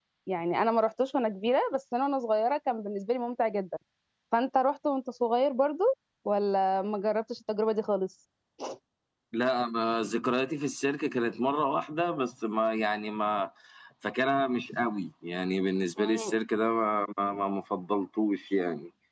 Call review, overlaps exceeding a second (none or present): none